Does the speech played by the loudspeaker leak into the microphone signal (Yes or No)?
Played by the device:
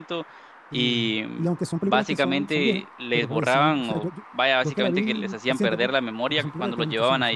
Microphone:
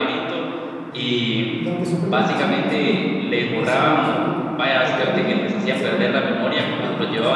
Yes